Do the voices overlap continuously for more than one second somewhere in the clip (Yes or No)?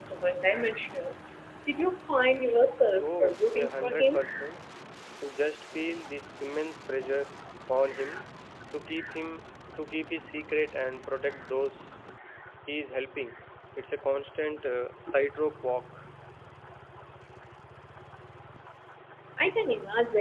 Yes